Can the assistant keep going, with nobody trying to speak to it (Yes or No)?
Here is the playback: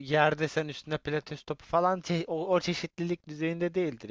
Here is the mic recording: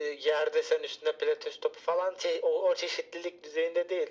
Yes